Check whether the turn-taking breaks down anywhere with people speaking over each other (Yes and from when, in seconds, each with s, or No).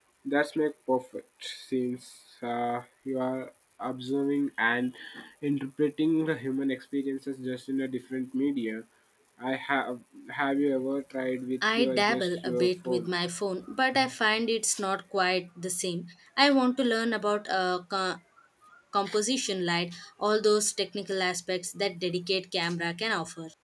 Yes, from 11.6 s